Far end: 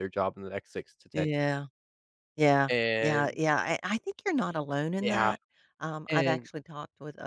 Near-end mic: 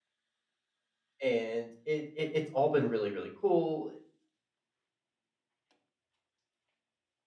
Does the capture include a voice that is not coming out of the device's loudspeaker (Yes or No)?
Yes